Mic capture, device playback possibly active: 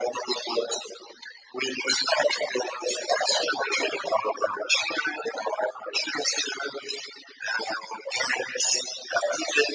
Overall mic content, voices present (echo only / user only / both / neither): echo only